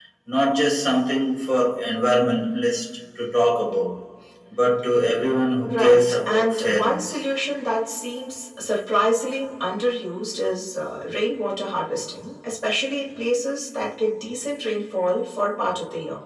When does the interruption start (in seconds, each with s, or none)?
5.7 s